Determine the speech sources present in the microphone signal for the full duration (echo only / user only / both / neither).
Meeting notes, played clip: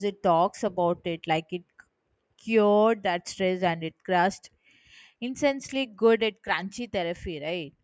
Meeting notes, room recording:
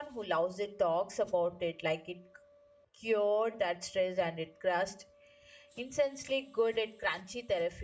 echo only